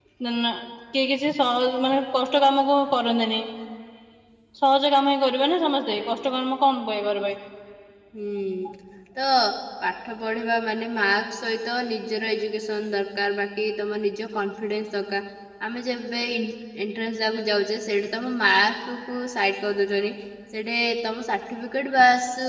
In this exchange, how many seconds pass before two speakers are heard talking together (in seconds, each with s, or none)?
none